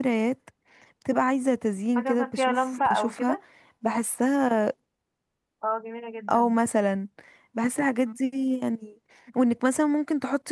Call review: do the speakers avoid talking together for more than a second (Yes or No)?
No